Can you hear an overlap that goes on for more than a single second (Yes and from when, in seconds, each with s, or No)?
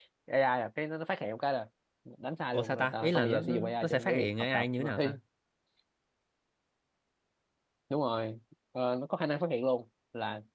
Yes, from 2.5 s